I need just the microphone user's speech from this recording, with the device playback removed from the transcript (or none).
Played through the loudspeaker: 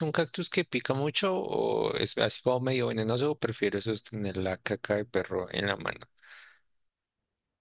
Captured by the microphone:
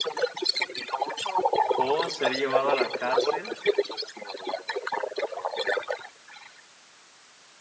¿O ser llevado a la cárcel